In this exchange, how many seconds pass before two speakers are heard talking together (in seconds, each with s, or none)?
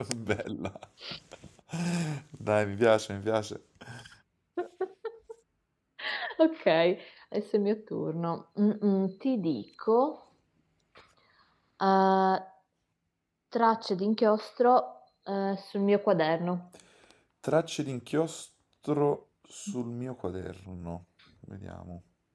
none